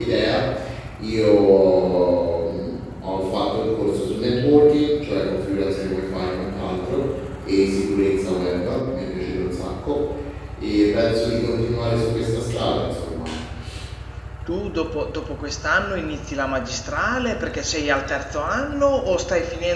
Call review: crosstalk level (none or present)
none